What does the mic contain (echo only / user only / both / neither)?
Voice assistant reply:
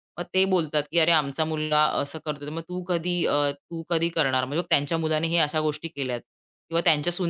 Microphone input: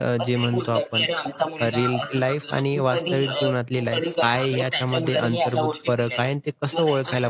both